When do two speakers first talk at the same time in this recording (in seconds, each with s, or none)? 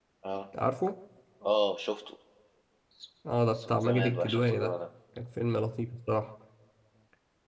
3.5 s